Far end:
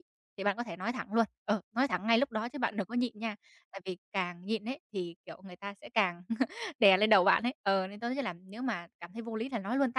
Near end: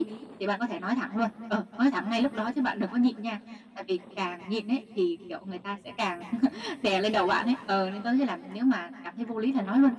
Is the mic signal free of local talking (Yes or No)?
Yes